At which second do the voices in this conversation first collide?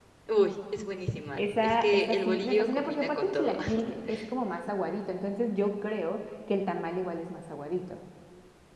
1 s

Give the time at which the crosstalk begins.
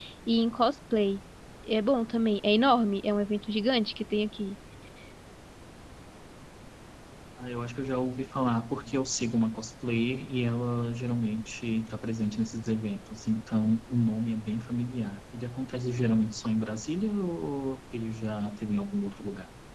none

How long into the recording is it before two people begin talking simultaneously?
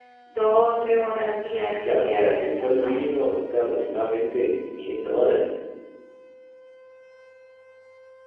2 s

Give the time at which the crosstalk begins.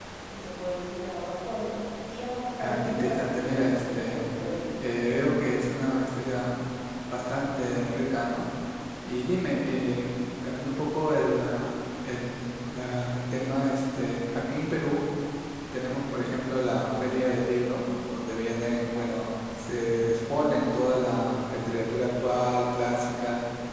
3 s

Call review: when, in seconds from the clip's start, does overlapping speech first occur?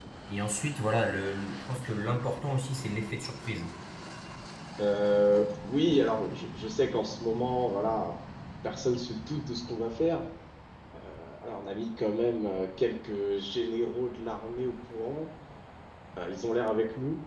none

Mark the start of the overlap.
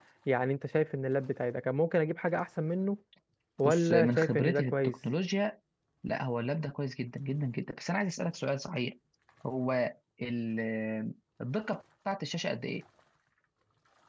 4 s

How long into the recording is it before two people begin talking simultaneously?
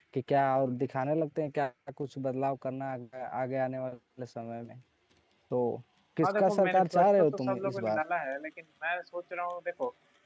6 s

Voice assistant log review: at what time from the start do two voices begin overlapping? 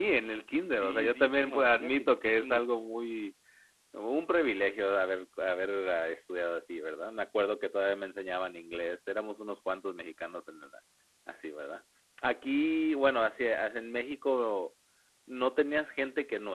1 s

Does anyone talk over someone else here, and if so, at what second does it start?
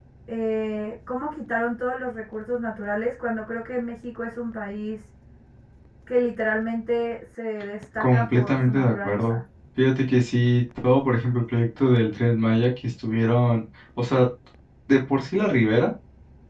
8 s

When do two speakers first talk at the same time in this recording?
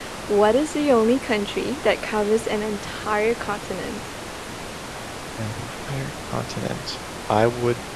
none

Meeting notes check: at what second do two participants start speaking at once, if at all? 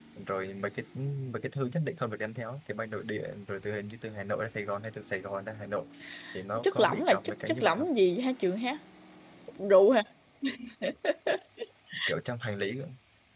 7 s

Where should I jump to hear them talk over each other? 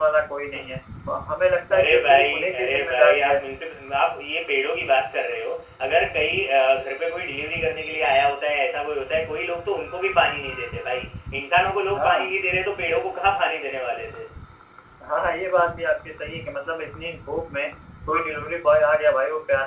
2 s

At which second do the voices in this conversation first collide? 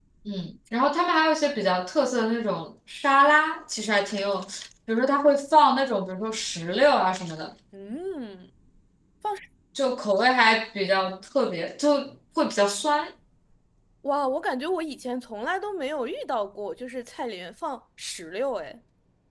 none

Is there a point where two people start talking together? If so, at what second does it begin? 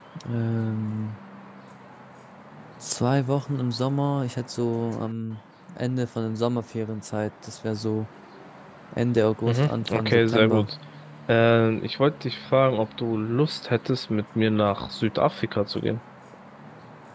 9 s

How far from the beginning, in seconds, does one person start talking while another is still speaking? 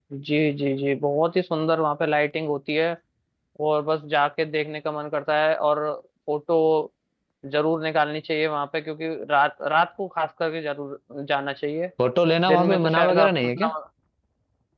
12 s

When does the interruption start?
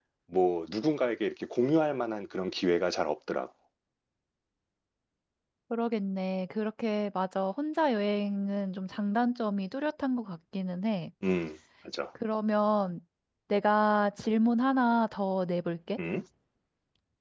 none

